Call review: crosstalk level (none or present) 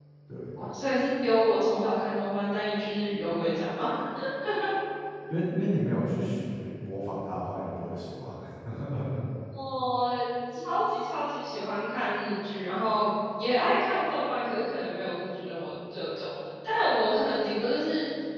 none